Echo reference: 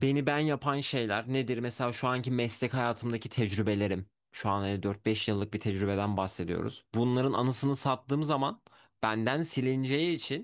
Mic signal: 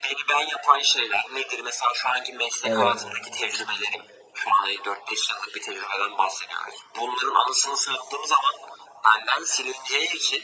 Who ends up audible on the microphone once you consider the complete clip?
both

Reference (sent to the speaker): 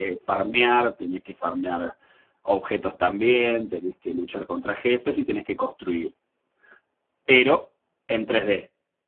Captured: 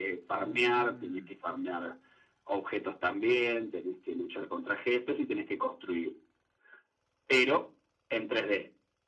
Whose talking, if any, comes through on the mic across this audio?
both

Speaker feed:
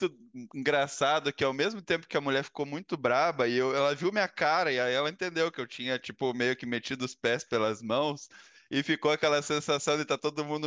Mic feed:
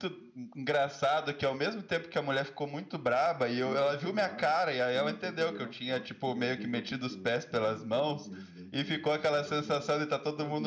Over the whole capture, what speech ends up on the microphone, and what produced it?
both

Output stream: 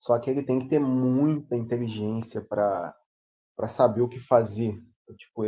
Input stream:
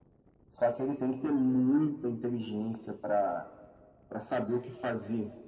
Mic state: echo only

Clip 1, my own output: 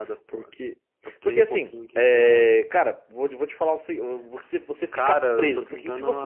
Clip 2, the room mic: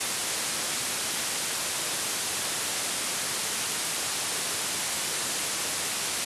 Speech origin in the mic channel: neither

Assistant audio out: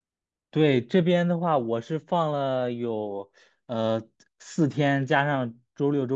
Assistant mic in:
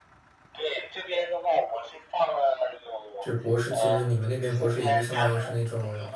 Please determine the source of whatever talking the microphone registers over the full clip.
both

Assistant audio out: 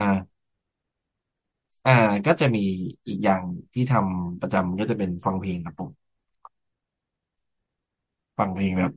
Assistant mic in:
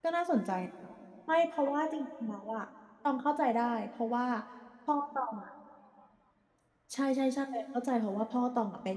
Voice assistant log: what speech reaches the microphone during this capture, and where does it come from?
user only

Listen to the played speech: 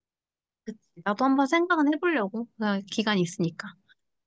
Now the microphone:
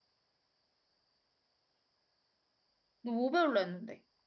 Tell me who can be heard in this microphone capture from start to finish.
user only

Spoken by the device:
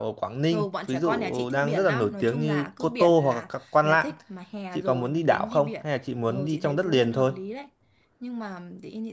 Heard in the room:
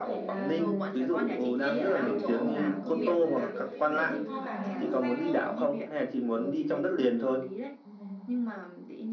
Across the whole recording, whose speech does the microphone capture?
both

